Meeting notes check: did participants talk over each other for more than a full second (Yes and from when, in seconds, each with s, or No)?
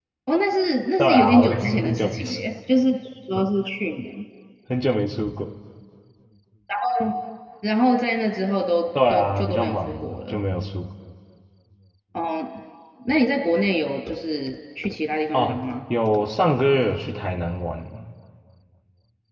Yes, from 1.0 s